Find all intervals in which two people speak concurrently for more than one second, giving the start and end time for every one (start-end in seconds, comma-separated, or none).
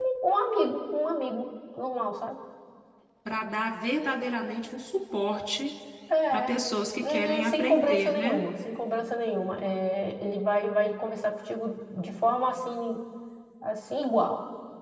7.0-8.4